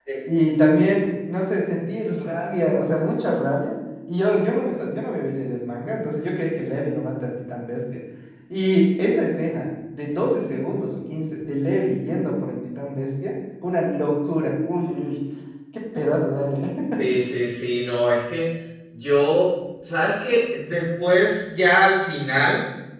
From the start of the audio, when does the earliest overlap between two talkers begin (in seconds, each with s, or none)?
none